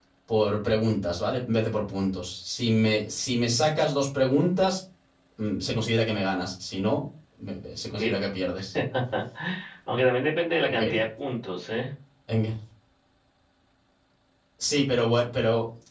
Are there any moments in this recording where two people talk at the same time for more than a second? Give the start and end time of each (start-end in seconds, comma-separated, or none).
none